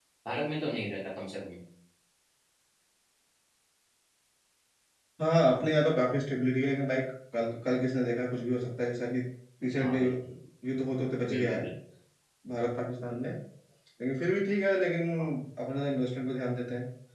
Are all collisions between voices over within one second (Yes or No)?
Yes